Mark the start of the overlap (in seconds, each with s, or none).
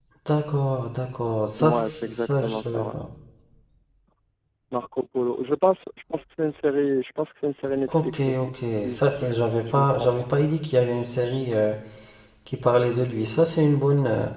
1.6 s